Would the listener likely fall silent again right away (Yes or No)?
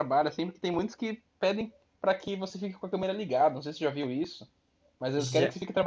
Yes